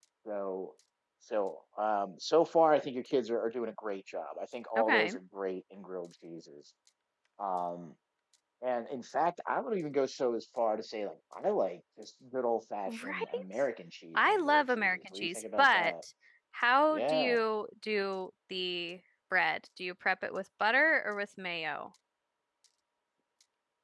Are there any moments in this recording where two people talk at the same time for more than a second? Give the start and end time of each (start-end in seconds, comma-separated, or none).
14.2-15.9